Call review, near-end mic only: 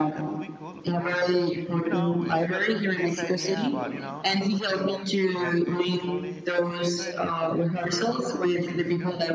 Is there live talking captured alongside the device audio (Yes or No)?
Yes